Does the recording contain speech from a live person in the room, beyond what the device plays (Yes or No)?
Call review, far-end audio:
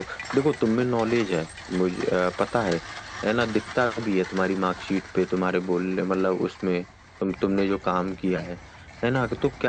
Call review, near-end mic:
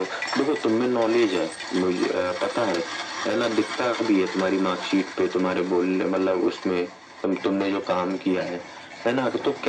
No